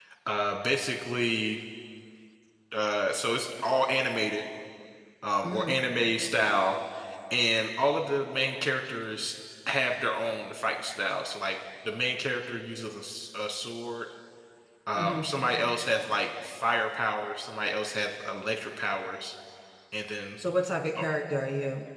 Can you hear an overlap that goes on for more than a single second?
No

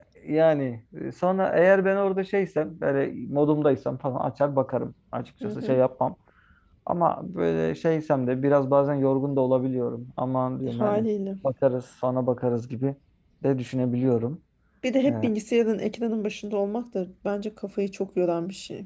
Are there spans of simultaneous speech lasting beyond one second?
No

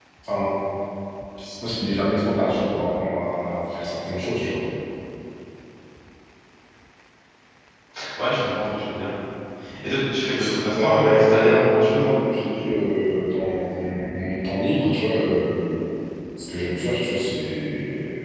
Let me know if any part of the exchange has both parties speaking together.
Yes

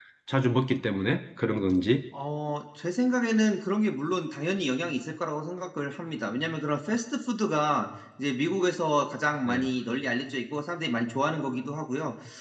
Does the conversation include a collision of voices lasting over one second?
No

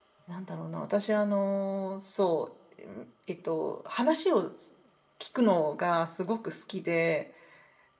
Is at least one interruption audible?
No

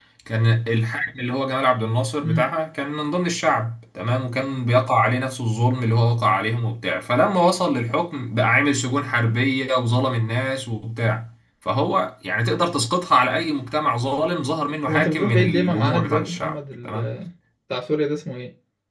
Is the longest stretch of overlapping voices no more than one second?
No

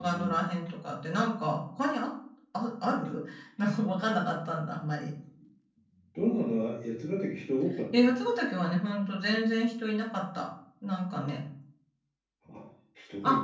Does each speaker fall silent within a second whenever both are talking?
Yes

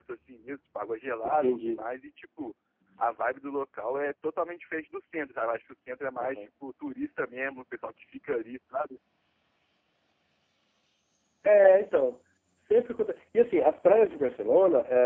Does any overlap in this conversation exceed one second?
No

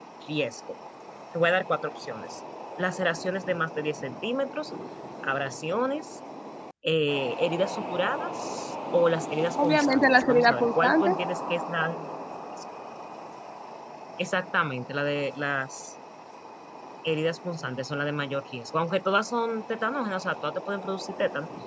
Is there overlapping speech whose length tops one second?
Yes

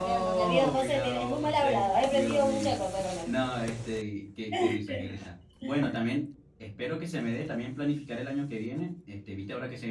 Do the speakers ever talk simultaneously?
Yes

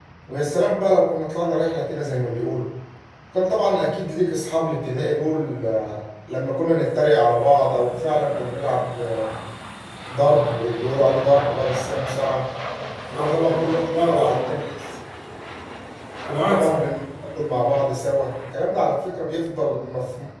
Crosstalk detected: Yes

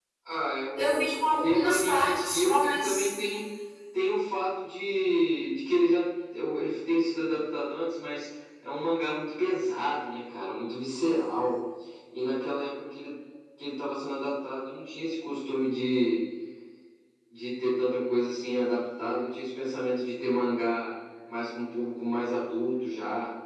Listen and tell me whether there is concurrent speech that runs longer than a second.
Yes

